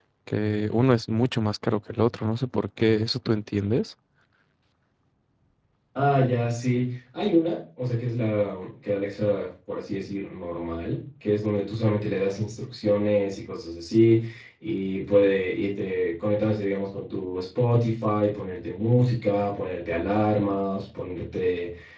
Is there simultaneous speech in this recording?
No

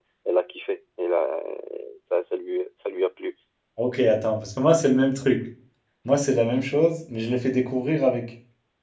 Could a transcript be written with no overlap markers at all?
Yes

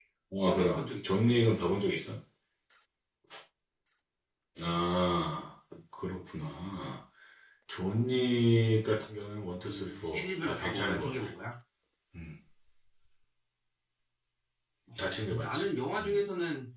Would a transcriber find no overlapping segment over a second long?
No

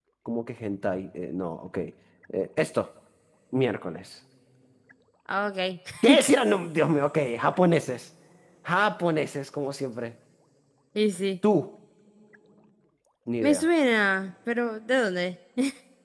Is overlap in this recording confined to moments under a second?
Yes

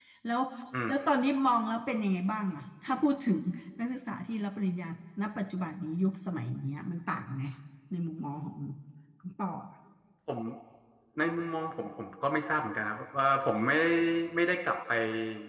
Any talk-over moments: No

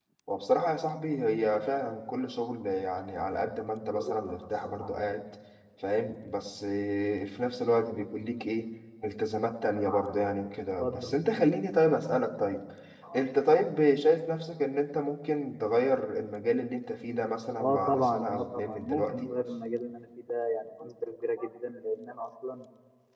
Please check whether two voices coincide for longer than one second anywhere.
Yes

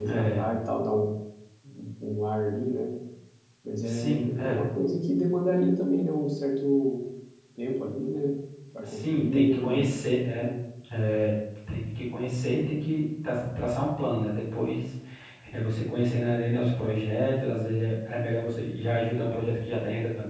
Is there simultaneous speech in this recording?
Yes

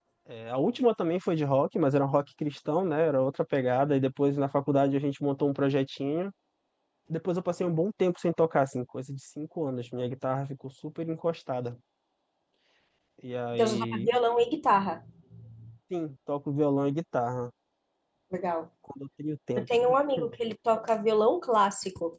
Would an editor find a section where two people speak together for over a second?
No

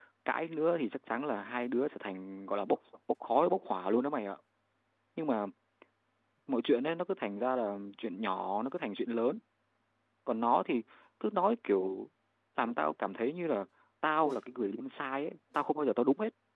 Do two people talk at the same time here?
No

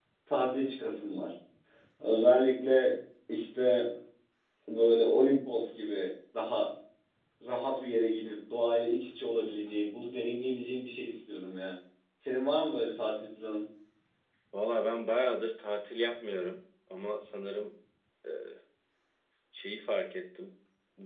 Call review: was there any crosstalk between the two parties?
No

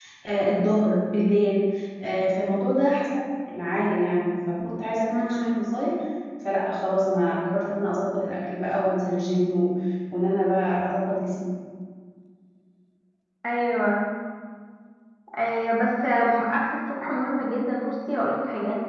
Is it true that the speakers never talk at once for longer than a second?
Yes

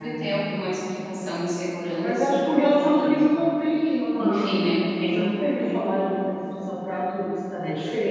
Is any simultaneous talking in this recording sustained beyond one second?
Yes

